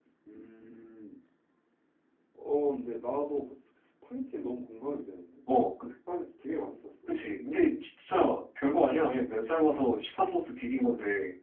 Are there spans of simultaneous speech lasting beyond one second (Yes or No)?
No